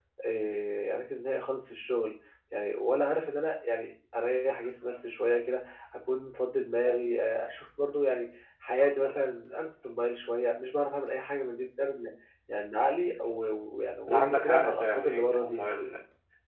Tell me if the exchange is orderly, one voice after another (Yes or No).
No